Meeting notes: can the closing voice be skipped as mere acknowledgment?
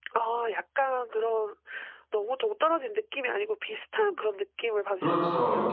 No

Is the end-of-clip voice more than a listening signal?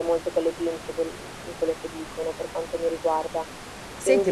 Yes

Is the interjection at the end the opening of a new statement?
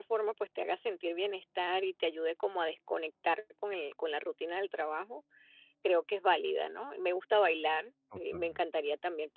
No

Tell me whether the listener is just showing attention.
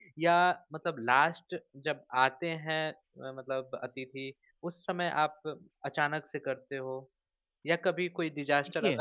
Yes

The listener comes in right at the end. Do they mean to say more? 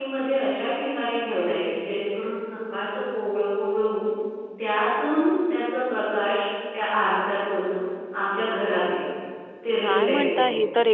Yes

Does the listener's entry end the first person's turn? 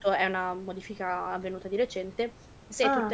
No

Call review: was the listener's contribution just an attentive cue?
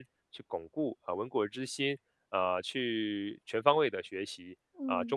Yes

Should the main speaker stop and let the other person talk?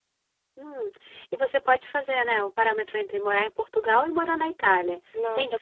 Yes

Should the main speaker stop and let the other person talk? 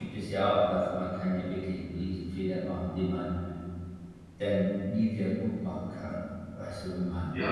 Yes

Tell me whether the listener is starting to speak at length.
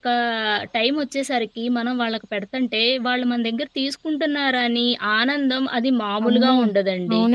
Yes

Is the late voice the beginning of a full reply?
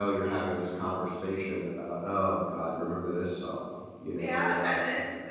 Yes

